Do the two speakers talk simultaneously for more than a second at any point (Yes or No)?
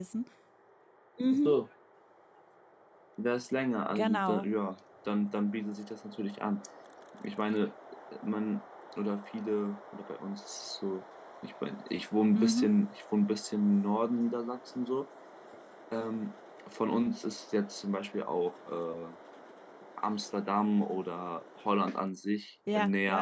No